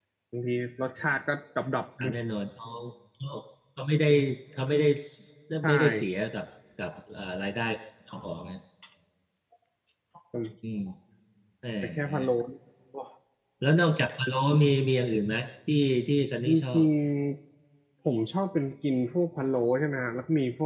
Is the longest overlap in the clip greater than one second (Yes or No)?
No